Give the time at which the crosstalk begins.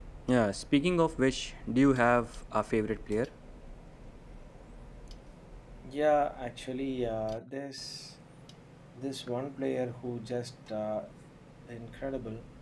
none

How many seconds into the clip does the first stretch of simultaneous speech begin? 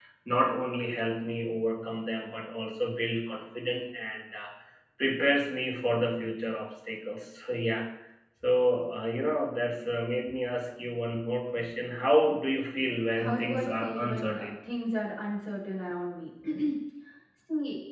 13.1 s

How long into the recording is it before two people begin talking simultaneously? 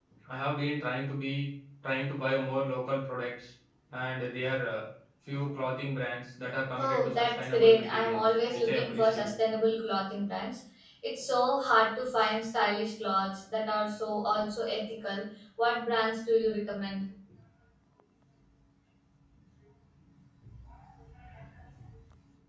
6.8 s

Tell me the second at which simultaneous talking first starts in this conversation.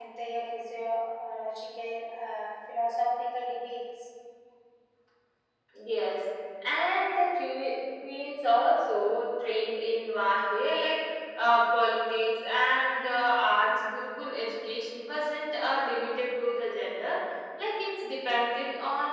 none

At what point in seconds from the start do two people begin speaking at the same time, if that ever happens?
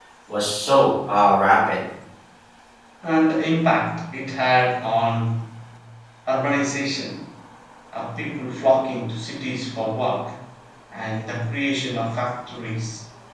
none

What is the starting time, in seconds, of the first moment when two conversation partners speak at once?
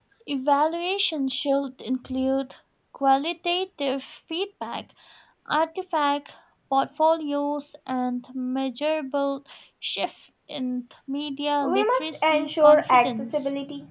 11.6 s

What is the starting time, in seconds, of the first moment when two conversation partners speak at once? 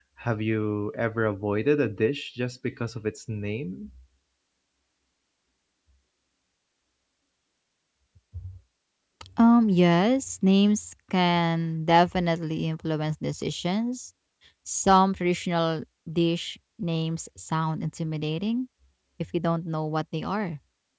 none

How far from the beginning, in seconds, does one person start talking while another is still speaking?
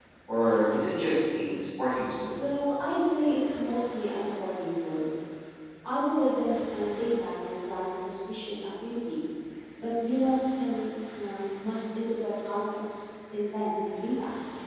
none

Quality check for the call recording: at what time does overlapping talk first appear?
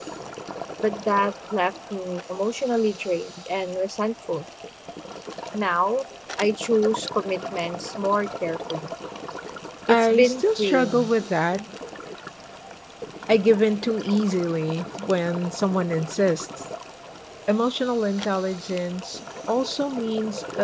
9.9 s

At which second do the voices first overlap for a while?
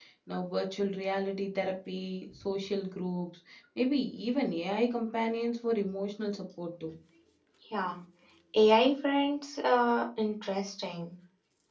none

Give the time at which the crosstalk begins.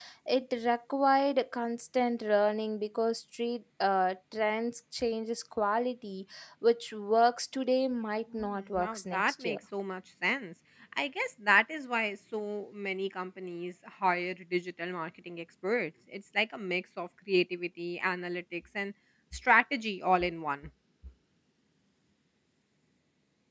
8.3 s

